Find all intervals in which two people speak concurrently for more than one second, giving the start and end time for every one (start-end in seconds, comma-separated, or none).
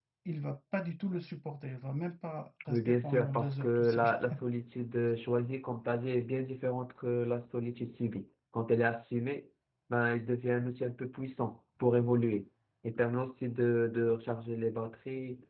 2.7-4.0